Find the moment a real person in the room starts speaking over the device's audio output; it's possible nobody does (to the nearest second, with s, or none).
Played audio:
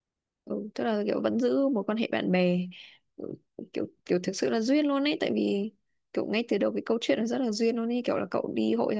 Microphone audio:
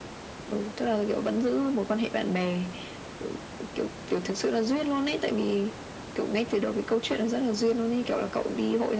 none